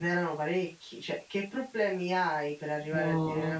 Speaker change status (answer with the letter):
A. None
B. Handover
A